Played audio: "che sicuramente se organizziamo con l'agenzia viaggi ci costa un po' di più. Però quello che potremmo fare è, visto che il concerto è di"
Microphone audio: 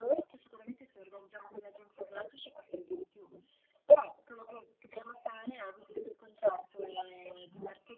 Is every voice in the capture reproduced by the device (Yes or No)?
Yes